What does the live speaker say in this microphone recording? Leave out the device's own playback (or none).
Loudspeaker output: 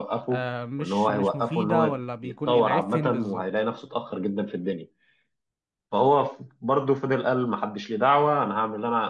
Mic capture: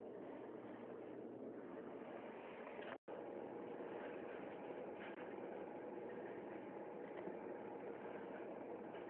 none